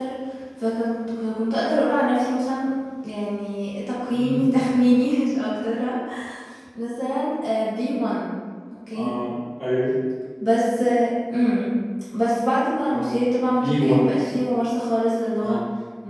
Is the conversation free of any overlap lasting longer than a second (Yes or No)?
Yes